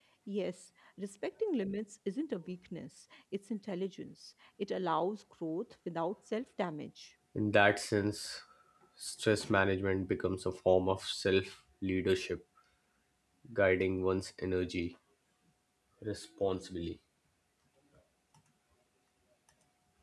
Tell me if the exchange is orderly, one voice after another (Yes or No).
Yes